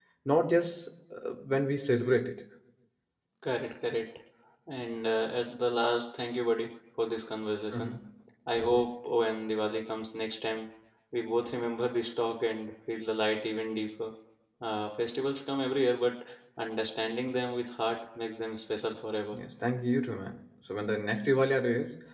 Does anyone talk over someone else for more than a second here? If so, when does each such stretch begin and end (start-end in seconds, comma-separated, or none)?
none